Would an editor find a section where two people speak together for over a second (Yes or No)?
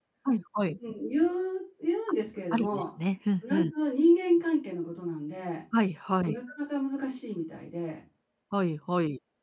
No